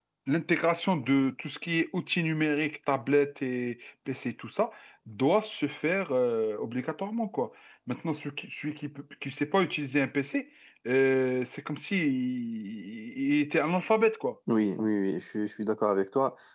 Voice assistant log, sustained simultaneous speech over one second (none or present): none